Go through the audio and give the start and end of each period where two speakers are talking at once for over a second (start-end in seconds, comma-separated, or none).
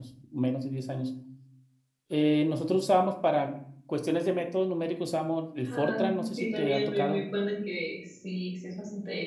5.7-7.2